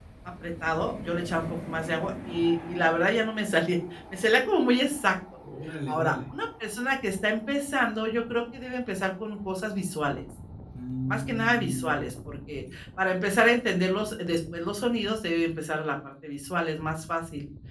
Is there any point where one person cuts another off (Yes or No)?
Yes